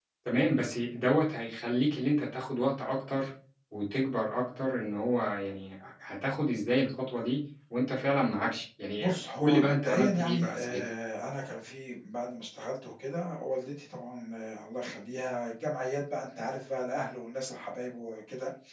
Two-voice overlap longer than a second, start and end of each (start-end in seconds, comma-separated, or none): 9.0-10.8